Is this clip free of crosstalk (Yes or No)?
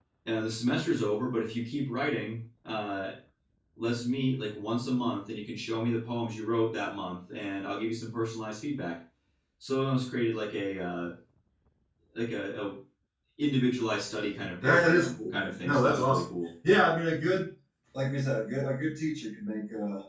No